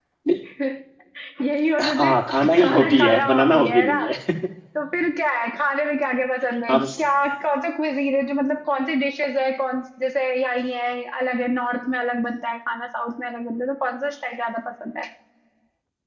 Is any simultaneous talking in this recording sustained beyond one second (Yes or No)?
Yes